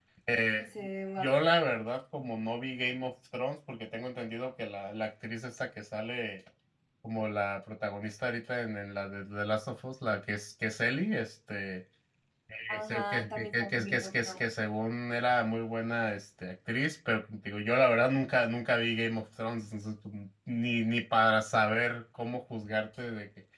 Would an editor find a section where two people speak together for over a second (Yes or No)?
Yes